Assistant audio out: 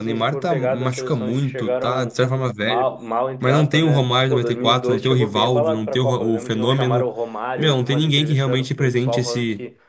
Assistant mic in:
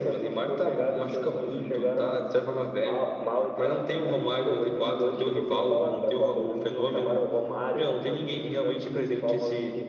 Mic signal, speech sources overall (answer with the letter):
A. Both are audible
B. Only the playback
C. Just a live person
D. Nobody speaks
B